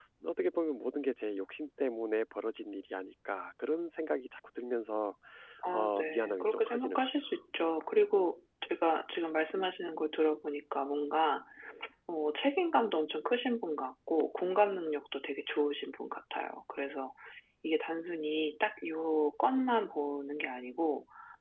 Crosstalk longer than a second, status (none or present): present